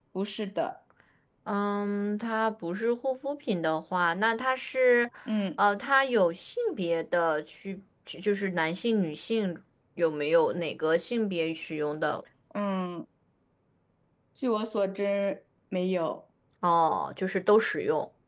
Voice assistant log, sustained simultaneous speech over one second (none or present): none